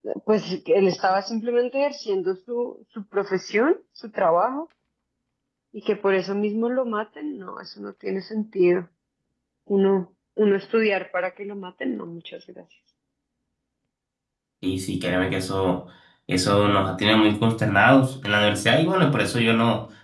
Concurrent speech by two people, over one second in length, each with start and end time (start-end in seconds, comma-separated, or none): none